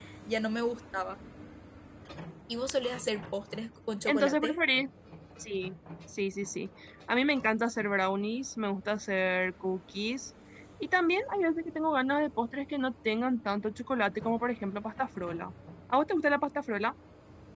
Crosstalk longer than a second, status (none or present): none